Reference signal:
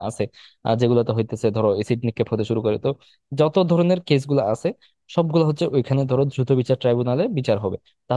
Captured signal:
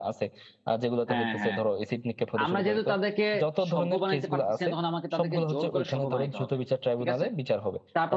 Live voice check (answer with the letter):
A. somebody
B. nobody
A